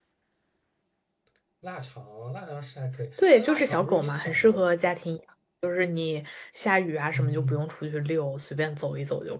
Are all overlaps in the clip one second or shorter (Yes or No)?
No